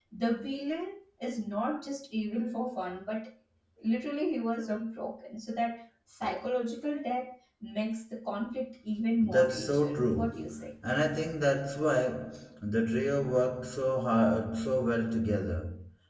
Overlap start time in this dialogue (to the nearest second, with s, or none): 9 s